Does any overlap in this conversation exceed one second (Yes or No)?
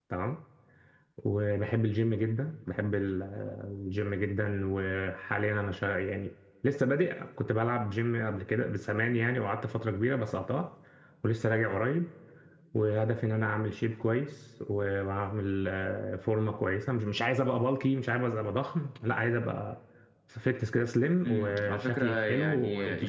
Yes